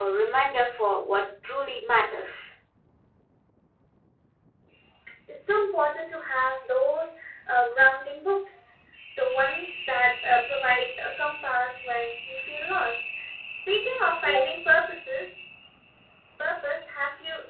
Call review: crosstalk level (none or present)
none